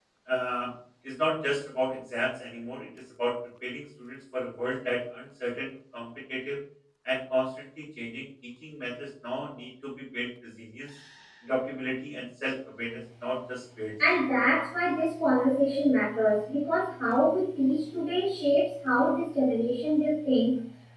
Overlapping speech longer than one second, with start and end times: none

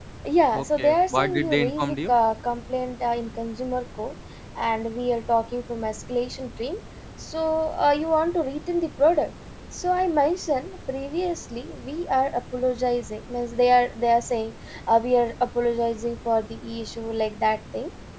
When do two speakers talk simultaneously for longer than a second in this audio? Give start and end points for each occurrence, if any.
0.5-2.1

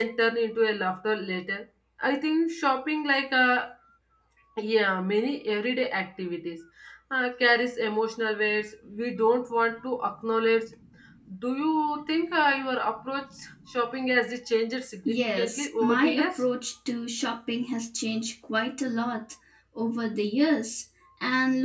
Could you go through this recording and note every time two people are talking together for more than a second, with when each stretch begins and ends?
15.1-16.4

